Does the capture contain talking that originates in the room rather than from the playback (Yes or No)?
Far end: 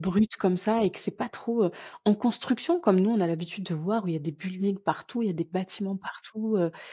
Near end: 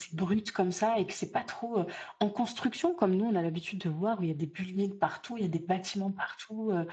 No